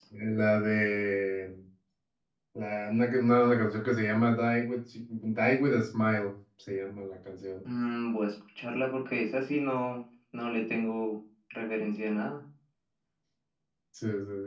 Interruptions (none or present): none